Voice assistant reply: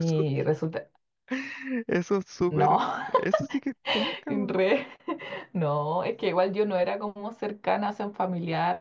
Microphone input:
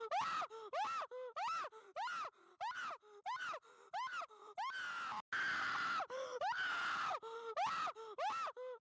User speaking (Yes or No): No